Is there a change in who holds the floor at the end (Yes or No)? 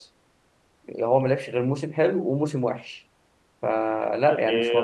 Yes